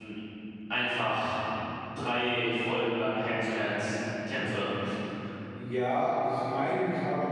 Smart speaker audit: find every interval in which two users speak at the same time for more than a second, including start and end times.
none

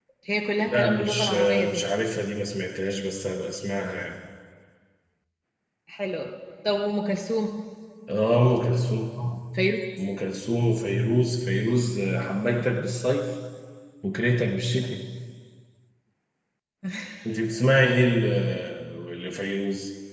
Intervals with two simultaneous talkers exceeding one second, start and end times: 0.6-1.8

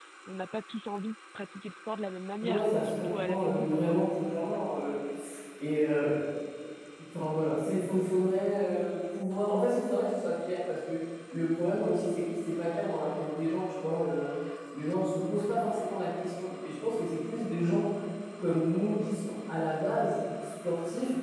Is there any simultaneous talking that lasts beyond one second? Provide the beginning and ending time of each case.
2.4-4.0

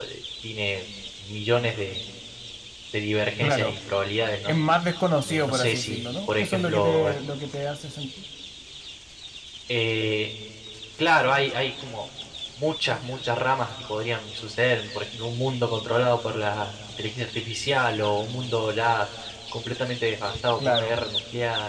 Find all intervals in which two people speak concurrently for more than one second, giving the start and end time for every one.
5.2-7.0

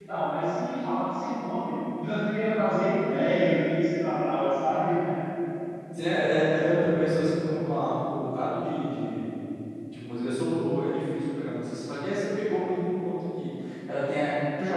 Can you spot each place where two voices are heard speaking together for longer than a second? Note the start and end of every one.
none

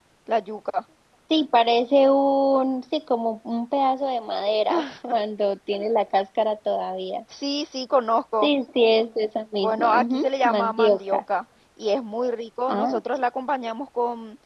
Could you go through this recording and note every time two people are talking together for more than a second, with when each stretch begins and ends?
9.6-11.2

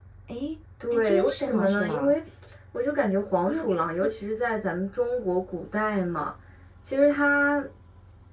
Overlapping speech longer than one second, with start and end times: 0.9-2.1

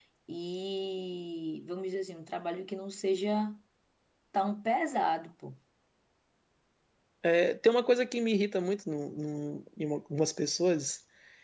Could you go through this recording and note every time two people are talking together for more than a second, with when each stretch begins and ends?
none

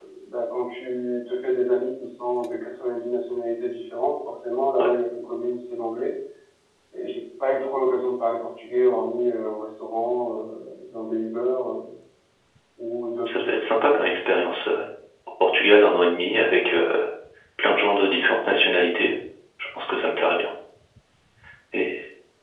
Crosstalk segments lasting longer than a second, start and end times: 13.2-14.5

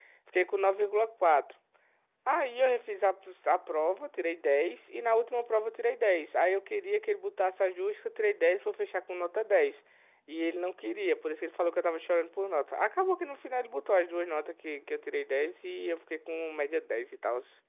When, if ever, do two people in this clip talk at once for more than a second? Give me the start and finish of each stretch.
none

